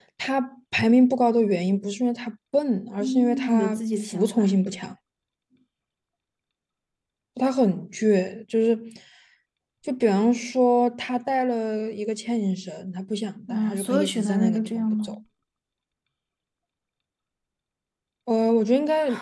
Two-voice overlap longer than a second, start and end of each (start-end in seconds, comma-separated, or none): 3.0-4.6, 13.5-15.2